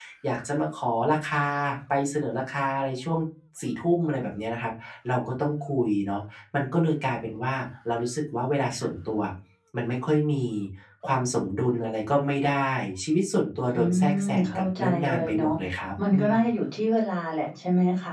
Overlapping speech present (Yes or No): Yes